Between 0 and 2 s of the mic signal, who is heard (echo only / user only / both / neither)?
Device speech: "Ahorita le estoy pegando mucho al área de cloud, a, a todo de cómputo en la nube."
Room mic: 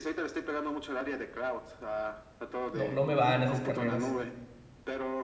echo only